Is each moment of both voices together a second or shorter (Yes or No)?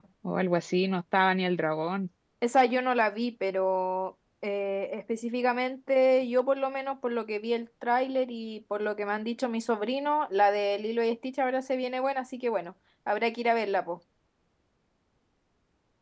Yes